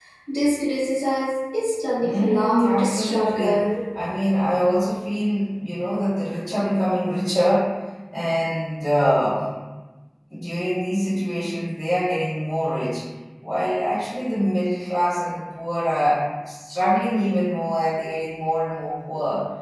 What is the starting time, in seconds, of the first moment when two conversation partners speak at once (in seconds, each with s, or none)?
2.0 s